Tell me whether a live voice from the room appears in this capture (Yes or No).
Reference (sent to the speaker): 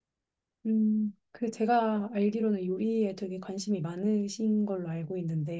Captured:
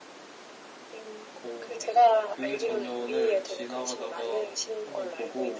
Yes